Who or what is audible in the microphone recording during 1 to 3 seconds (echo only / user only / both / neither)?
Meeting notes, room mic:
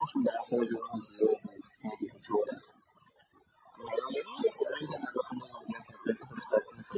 echo only